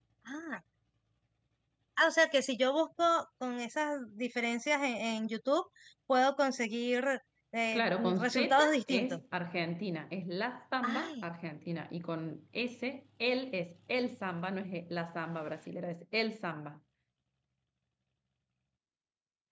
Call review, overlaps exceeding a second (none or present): present